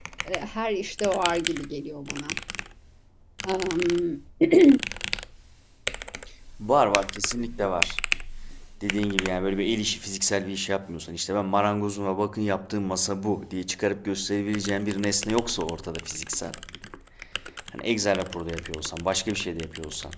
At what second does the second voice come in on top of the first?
none

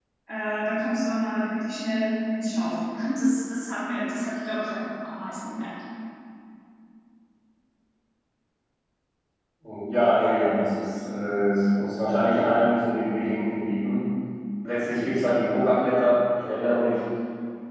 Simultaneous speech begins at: none

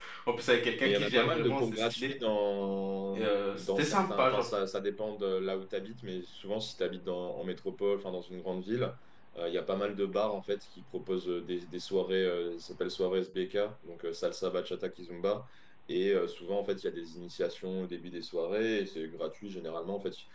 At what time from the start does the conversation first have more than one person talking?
0.8 s

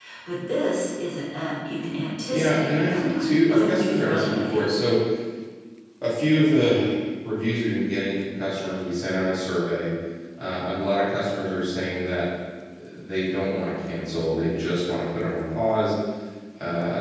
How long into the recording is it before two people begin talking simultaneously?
2.3 s

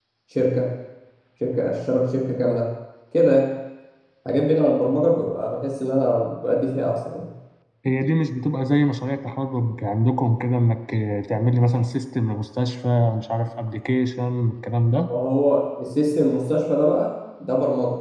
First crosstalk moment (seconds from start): none

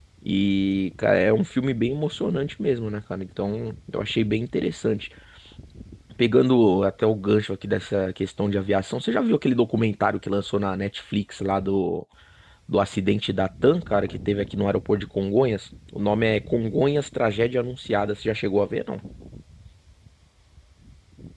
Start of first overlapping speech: none

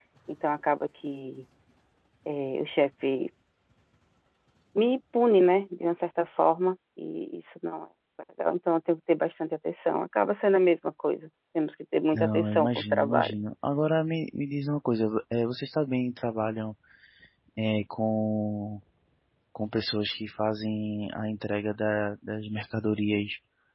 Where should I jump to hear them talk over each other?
12.1 s

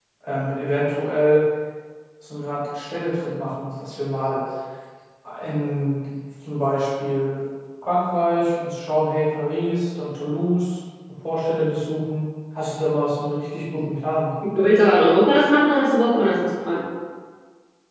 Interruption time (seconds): none

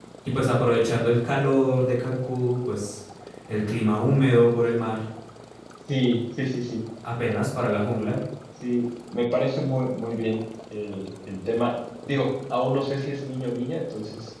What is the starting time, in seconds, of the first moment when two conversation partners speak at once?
none

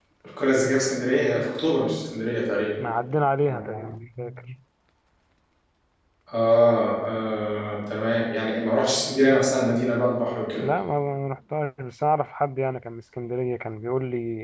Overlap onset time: none

